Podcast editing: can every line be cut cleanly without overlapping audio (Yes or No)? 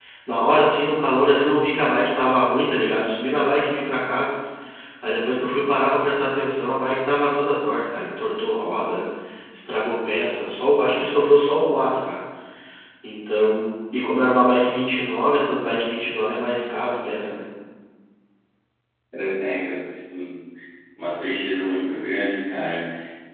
Yes